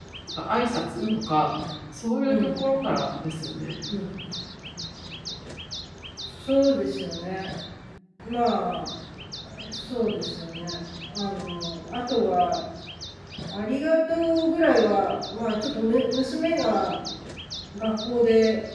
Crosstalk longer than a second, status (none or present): none